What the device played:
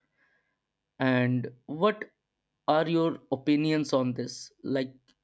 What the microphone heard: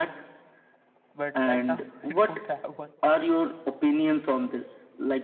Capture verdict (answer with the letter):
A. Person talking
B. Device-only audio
A